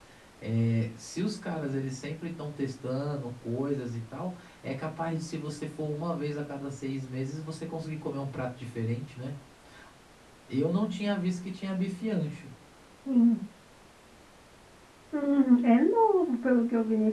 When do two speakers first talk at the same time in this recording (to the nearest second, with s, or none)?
none